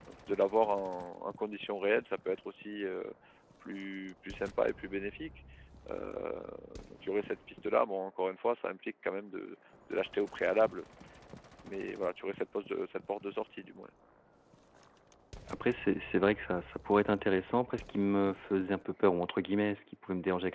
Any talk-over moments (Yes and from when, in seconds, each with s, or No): No